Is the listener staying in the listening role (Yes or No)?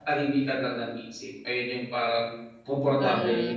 No